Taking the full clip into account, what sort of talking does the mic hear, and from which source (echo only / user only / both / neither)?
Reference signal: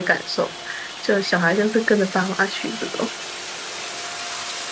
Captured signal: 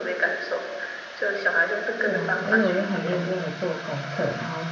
both